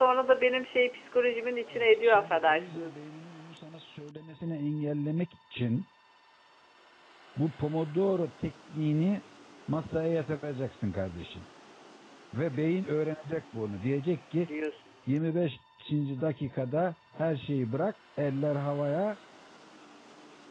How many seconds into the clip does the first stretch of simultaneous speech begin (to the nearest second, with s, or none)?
2 s